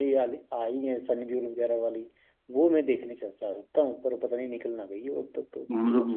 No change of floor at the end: No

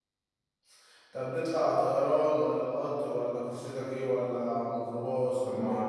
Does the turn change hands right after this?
Yes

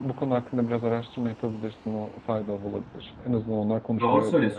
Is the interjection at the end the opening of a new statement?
Yes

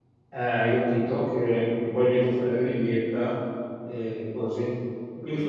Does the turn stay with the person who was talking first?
Yes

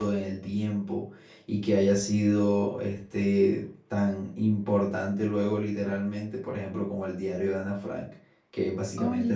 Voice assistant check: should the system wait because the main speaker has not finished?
Yes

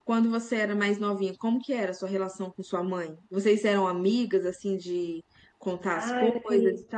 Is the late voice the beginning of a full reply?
Yes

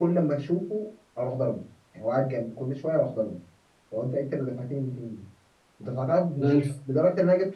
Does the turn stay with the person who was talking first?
Yes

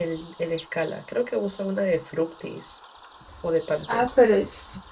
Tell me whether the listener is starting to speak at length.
Yes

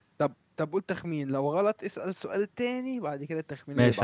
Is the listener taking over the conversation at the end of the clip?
Yes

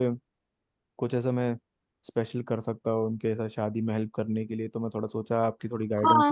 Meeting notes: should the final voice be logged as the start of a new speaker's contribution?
Yes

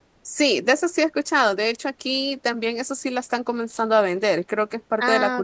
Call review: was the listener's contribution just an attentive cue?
Yes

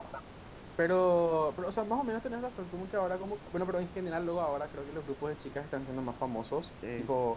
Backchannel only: Yes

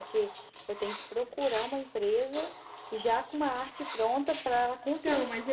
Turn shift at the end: Yes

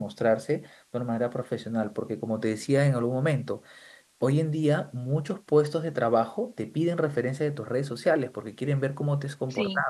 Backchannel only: Yes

